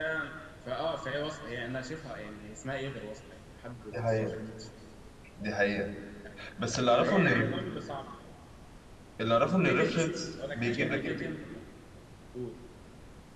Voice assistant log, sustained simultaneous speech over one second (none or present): present